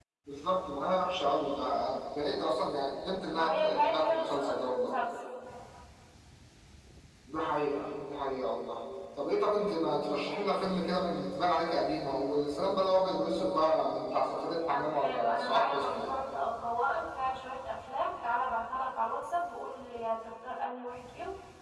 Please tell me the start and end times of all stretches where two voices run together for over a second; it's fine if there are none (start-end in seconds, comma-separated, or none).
3.3-4.9, 14.7-16.1